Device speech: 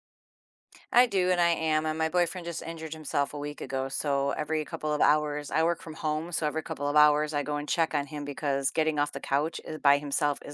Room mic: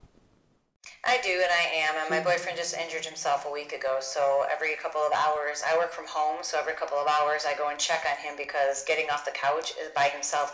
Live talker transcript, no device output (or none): Absolutely.